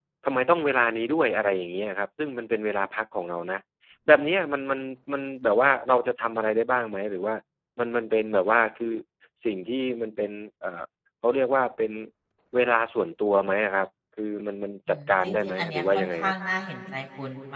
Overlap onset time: 14.9 s

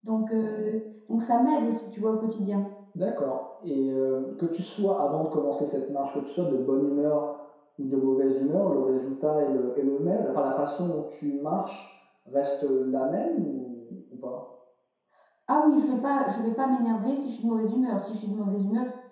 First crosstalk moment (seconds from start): none

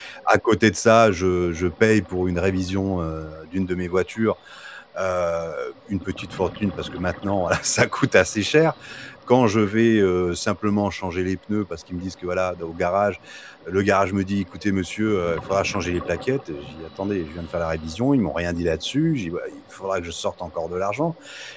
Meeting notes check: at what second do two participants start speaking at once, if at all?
none

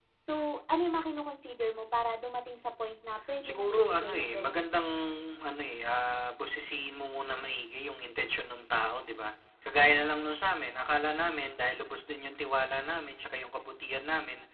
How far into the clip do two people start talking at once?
3.4 s

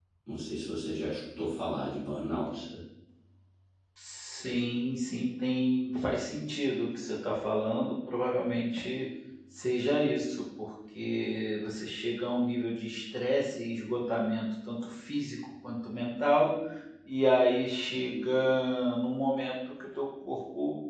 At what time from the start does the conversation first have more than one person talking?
none

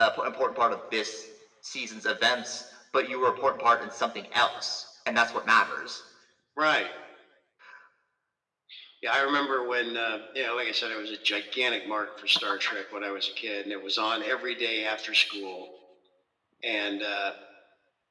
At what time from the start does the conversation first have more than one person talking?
none

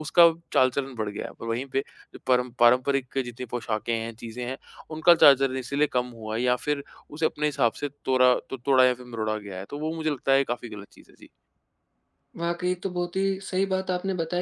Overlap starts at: none

